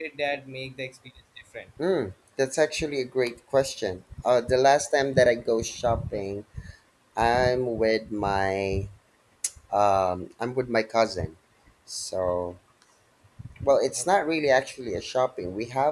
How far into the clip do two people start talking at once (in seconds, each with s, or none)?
none